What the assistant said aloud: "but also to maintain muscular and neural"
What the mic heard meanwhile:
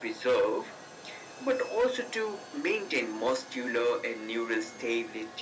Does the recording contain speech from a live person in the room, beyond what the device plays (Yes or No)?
No